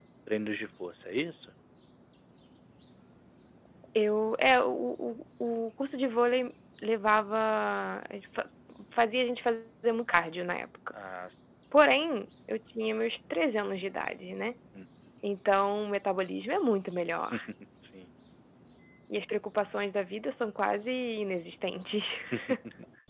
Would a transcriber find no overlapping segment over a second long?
Yes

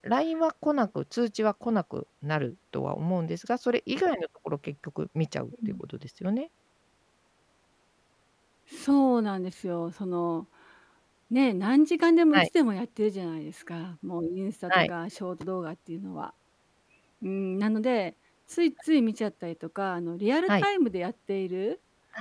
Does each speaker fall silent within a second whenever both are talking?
Yes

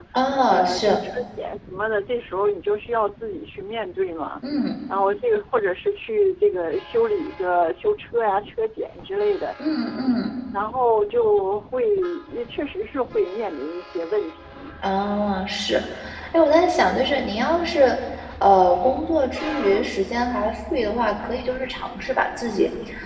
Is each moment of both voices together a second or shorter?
Yes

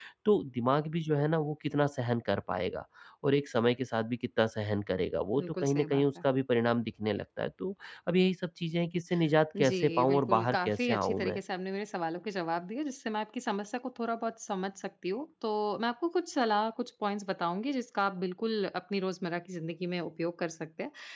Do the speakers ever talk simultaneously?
Yes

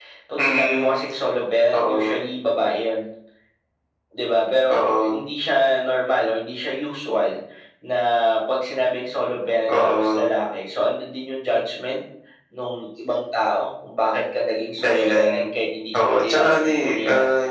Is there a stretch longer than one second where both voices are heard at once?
Yes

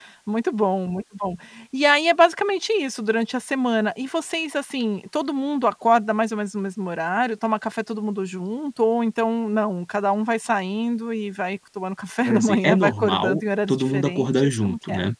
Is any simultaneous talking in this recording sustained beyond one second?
Yes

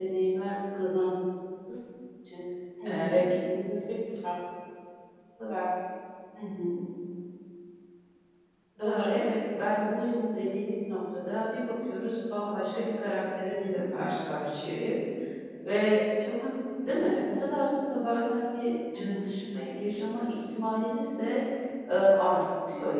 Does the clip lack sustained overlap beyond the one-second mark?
Yes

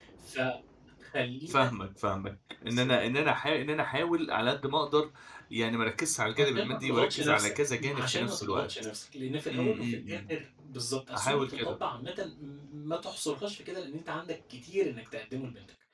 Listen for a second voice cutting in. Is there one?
Yes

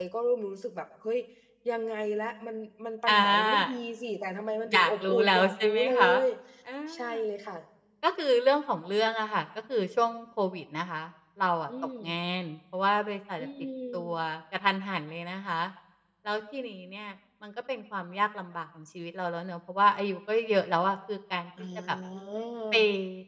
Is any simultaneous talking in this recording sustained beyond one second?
Yes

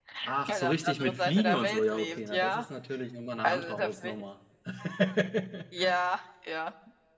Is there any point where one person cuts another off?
Yes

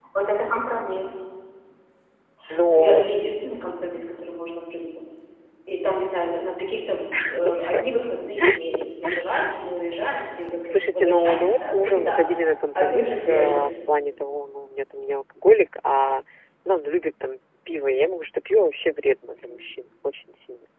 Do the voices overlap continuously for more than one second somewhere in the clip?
Yes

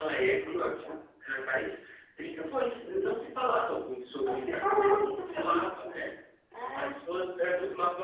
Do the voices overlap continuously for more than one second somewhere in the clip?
Yes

